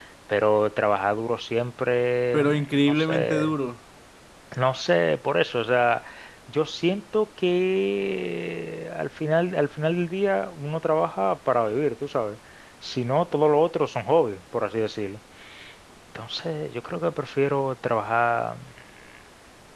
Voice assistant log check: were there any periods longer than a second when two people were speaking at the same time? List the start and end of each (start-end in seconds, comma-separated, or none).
2.3-3.5